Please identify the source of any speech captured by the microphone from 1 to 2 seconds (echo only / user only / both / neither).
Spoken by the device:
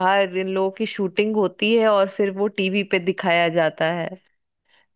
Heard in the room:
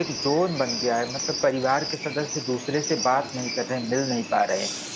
user only